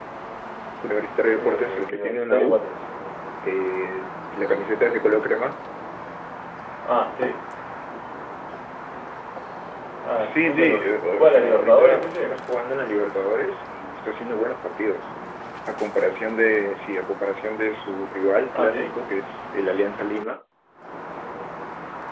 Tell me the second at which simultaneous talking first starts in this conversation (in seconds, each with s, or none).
1.4 s